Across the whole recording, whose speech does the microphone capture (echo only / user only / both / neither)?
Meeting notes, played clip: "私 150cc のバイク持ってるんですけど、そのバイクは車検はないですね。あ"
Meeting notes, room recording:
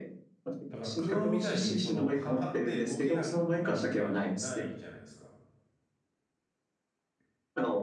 both